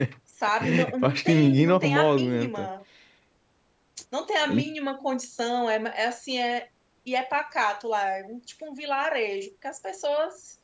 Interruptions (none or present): present